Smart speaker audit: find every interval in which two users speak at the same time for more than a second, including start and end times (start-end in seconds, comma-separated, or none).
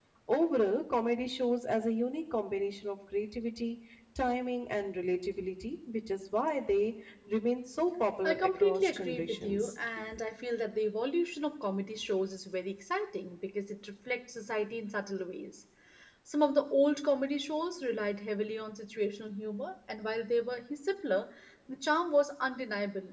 8.2-9.7